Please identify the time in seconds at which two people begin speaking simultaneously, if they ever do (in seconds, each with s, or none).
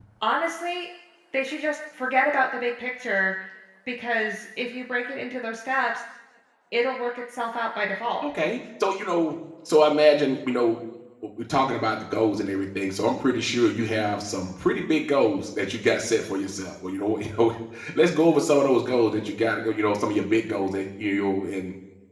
none